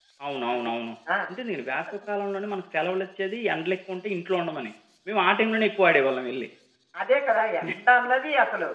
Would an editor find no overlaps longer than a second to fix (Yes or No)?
Yes